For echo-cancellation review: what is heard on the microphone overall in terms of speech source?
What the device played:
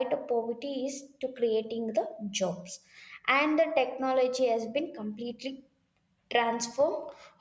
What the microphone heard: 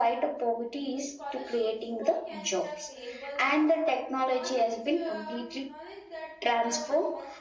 both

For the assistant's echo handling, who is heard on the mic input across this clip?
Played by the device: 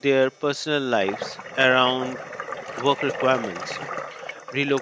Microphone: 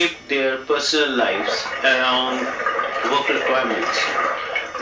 echo only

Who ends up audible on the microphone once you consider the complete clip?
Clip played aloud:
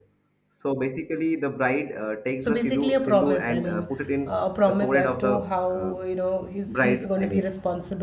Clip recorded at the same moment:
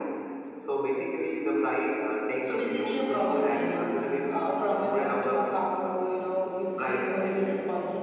echo only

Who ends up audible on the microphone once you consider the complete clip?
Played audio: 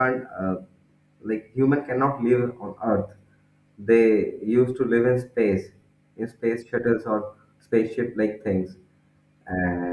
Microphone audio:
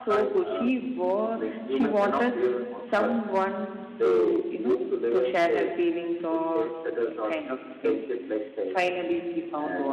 both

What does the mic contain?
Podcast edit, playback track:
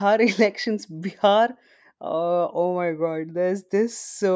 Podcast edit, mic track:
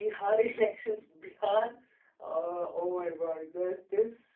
echo only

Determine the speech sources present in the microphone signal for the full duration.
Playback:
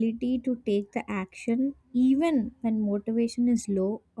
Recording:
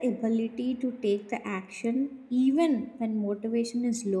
echo only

